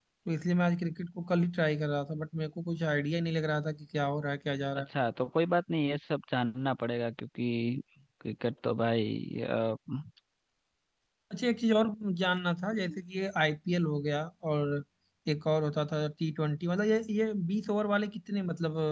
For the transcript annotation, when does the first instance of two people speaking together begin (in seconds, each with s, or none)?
none